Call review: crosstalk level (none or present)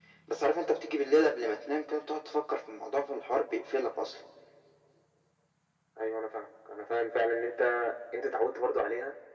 none